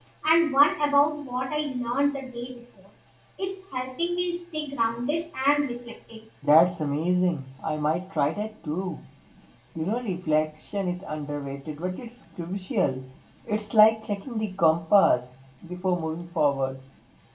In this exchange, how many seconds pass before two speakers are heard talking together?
none

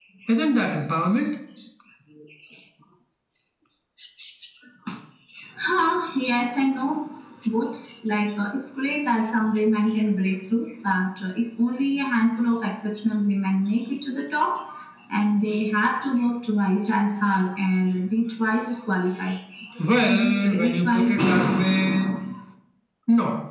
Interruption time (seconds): 20.0 s

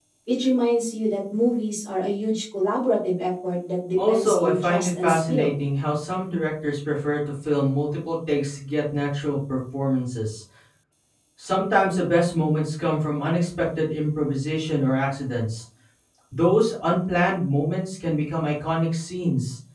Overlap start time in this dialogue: 4.0 s

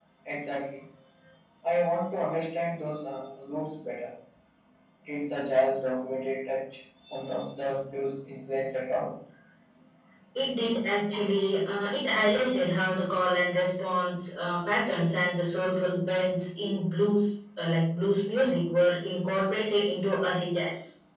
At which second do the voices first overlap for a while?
none

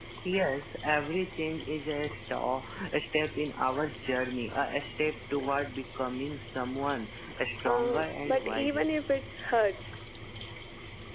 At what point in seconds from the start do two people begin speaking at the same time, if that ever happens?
7.6 s

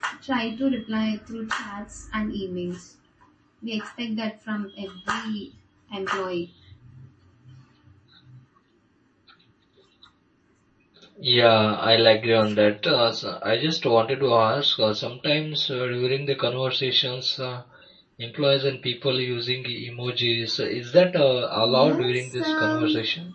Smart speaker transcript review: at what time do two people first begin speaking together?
21.6 s

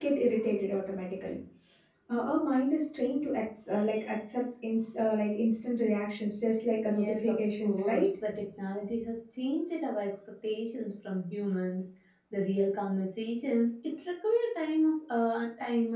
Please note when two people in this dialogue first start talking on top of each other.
6.9 s

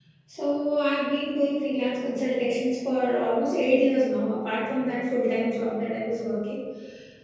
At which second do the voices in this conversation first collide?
none

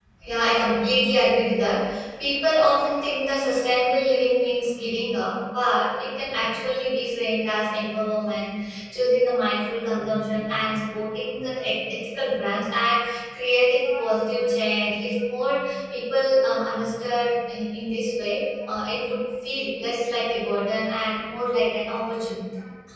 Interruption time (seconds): none

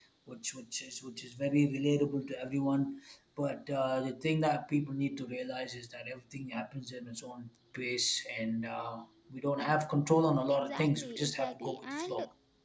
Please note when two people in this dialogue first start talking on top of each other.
10.5 s

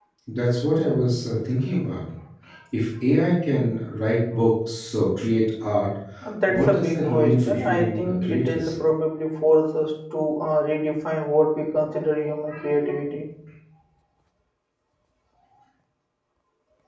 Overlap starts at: 6.5 s

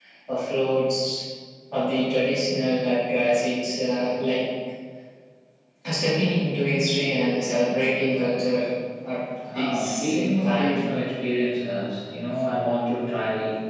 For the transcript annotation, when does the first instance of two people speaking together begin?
9.5 s

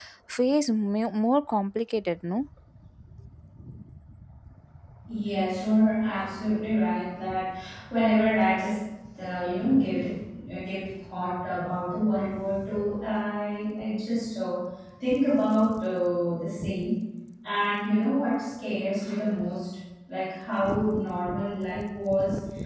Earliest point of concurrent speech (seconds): none

